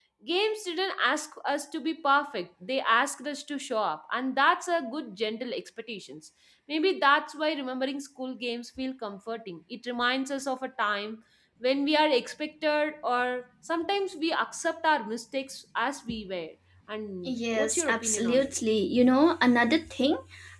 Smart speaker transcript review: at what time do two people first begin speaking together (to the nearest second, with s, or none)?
17 s